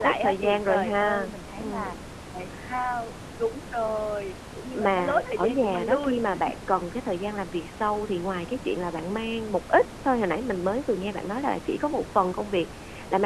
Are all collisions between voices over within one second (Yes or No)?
No